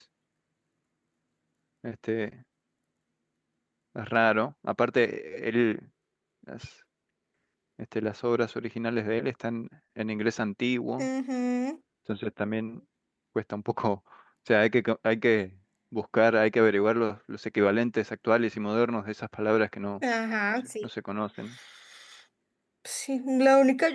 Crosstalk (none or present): none